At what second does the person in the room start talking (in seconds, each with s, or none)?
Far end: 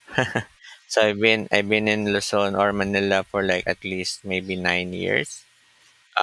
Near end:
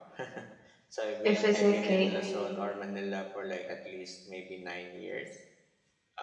1.2 s